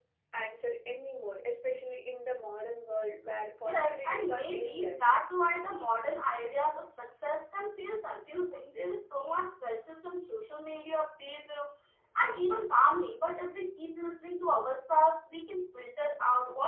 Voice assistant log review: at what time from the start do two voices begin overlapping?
4 s

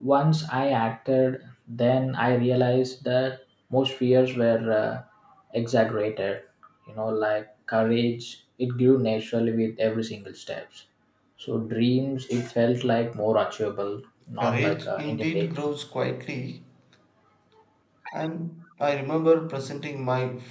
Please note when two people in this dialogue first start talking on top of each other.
14 s

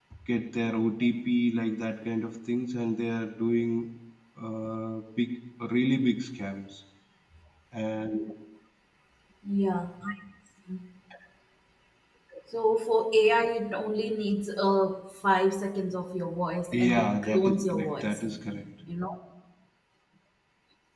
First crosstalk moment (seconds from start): 17 s

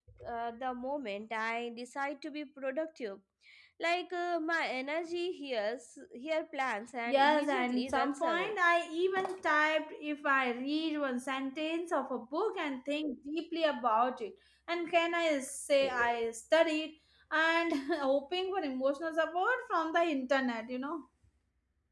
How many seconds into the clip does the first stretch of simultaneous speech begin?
7 s

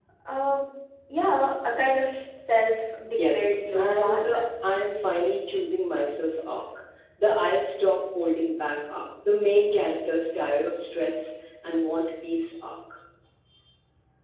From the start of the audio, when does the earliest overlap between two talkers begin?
3 s

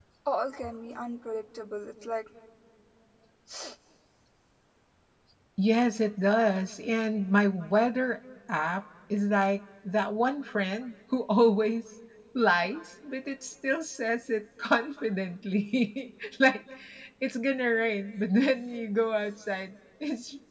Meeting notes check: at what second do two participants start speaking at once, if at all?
none

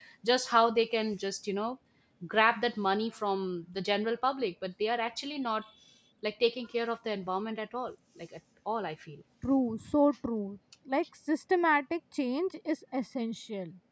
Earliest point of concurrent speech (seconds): none

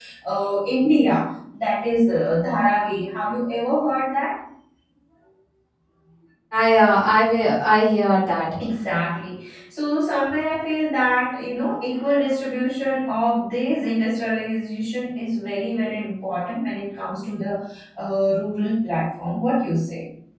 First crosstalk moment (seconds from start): none

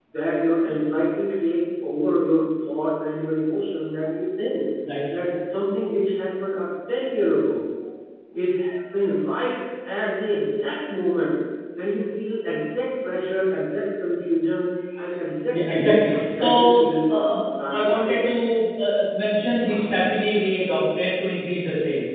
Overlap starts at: 15 s

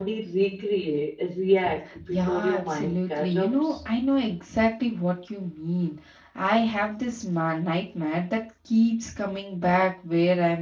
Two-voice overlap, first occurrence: 2 s

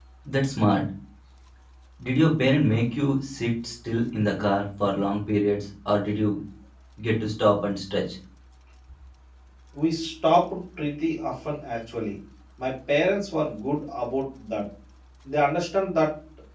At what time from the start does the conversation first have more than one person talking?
none

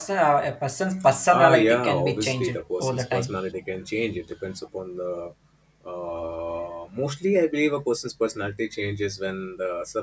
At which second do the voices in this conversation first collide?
1 s

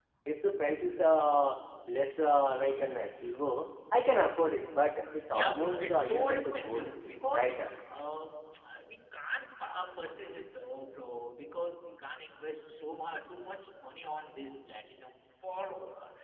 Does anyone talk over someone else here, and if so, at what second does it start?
5 s

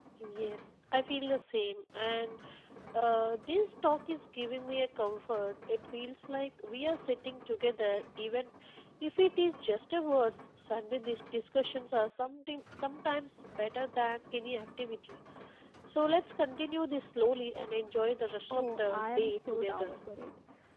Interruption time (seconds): 19 s

